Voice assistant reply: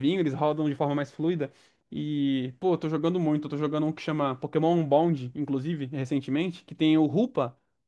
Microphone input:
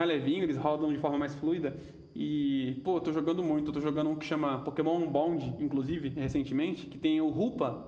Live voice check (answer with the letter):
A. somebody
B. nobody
B